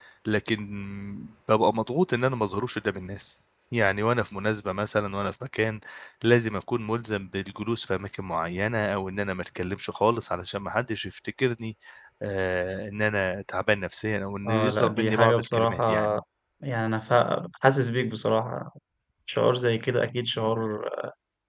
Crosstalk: present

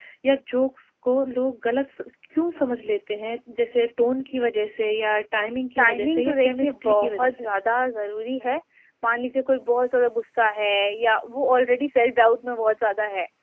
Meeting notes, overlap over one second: present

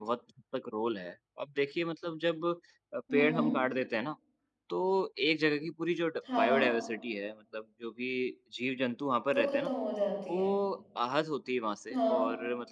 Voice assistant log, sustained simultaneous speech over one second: none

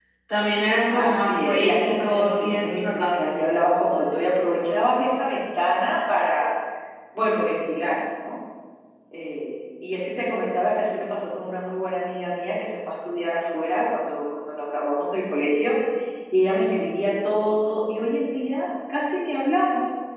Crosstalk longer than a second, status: present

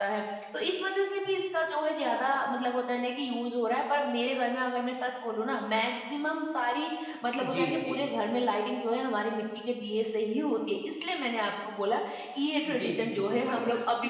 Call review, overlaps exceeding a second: present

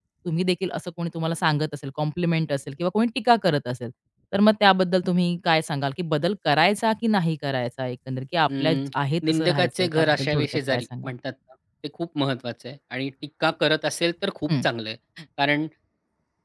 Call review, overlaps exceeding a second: present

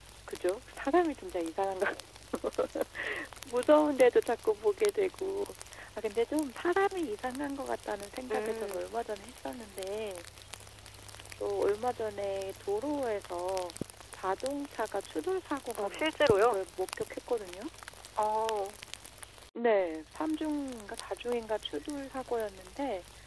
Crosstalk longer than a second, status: none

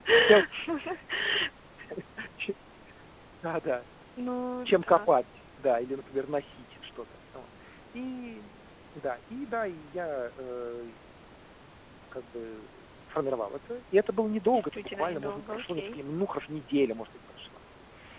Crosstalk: present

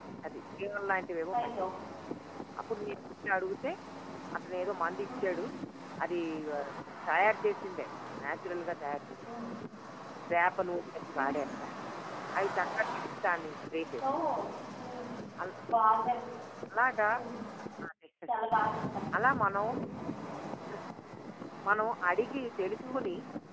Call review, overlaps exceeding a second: none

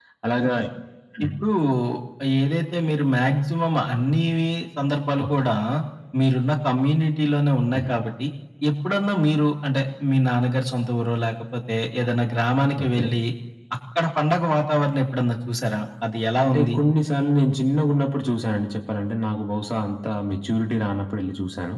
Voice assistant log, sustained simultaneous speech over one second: none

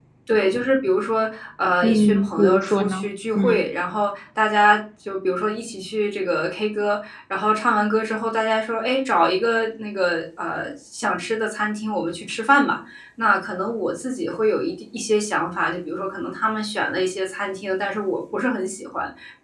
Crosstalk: present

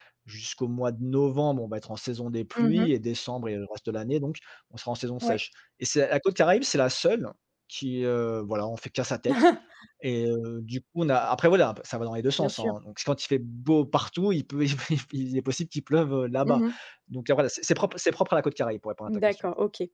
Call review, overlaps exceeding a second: none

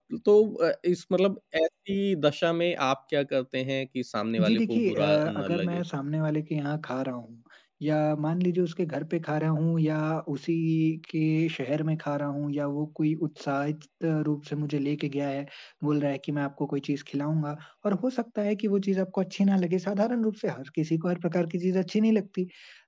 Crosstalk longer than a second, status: present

